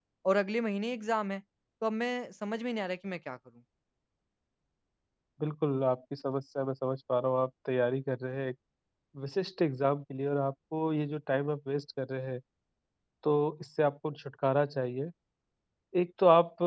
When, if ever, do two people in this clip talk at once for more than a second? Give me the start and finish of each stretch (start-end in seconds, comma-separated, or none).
none